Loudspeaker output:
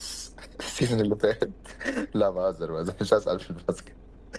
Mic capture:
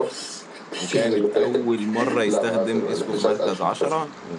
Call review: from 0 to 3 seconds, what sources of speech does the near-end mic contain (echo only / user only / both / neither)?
both